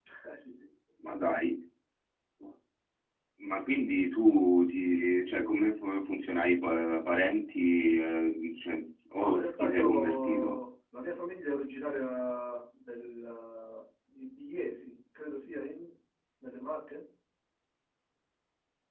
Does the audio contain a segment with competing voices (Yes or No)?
Yes